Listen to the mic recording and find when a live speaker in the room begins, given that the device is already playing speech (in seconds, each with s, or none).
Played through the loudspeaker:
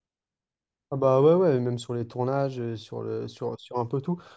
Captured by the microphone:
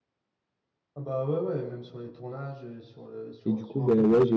3.4 s